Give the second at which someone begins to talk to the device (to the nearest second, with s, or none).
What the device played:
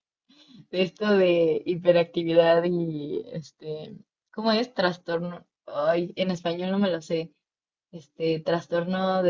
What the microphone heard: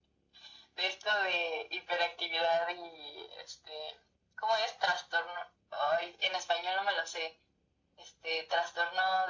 none